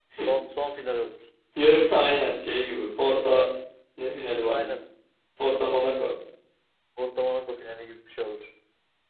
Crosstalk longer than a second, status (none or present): none